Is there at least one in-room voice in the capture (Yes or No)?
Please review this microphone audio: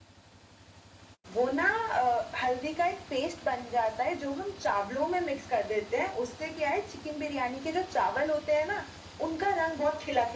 No